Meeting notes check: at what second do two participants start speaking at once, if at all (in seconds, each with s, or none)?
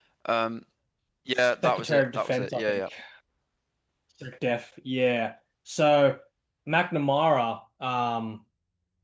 1.4 s